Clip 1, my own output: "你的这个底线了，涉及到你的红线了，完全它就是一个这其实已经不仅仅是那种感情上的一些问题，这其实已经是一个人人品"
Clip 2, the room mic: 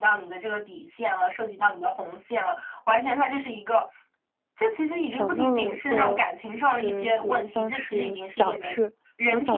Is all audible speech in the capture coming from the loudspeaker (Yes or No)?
No